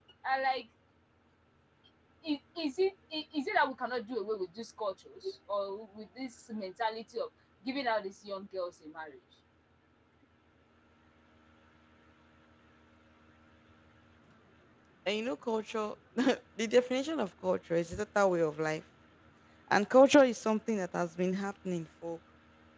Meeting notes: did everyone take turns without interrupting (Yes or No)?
Yes